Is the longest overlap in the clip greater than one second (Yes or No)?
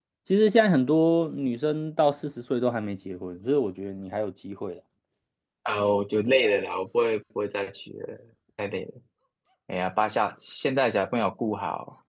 No